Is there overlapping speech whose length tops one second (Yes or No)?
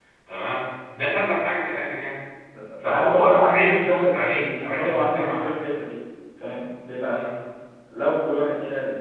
Yes